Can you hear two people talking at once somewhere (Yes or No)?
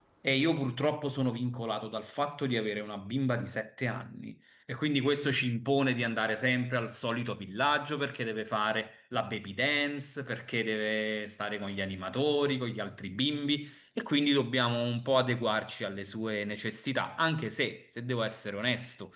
No